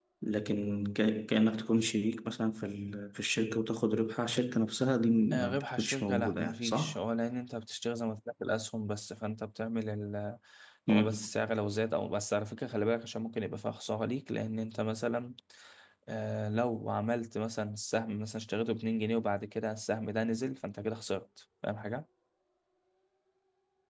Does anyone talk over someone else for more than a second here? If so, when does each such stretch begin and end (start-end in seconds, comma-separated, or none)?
5.3-7.0